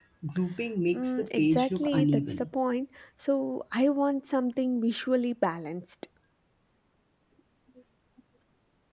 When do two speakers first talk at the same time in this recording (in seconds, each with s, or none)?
0.9 s